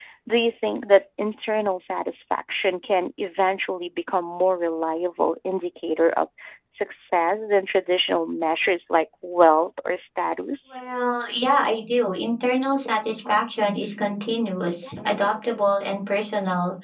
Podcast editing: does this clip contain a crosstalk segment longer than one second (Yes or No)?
No